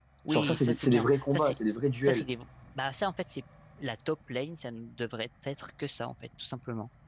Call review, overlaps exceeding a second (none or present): present